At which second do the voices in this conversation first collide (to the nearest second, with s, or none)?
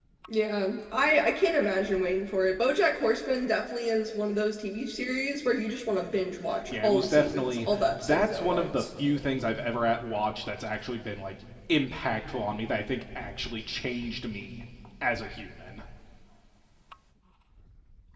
6 s